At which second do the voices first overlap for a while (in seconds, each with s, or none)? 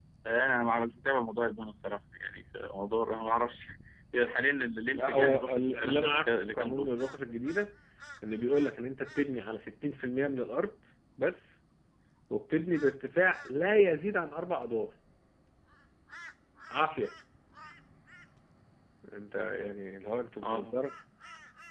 4.9 s